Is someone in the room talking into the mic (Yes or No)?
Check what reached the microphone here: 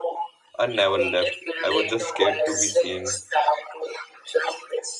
Yes